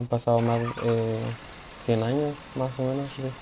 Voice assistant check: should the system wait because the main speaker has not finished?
No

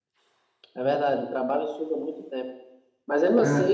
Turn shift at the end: No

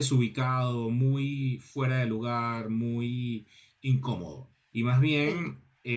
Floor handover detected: No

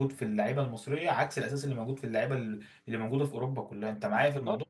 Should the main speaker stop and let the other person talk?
Yes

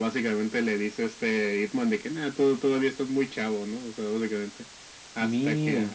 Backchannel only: Yes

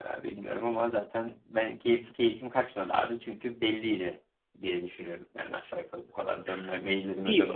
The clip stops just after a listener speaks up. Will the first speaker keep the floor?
No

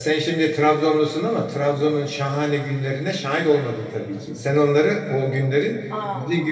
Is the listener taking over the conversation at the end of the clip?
No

